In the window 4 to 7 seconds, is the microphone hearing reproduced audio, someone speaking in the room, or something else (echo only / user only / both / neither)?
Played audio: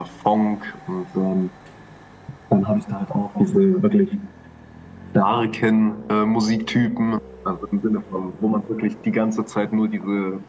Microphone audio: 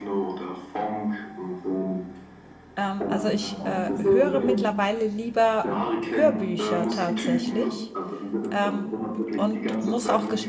both